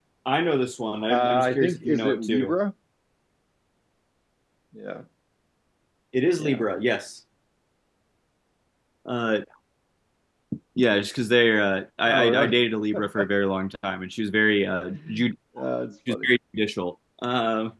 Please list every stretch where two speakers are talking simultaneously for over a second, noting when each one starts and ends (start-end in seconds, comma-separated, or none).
1.1-2.6